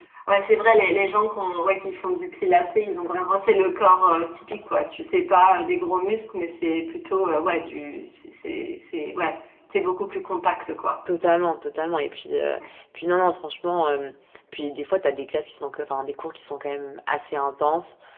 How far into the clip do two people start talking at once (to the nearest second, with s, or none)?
none